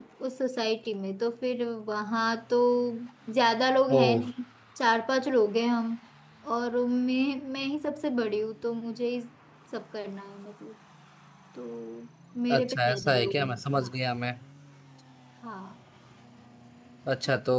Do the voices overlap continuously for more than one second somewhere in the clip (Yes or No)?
Yes